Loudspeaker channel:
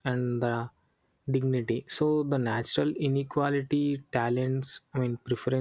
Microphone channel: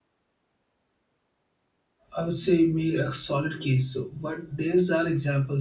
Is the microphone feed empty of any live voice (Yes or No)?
No